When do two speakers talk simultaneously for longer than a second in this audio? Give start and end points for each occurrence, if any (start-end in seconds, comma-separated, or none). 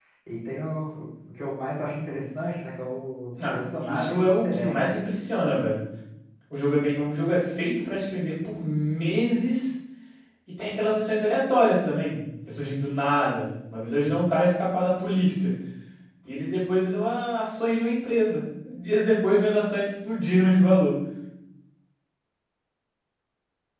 3.5-4.9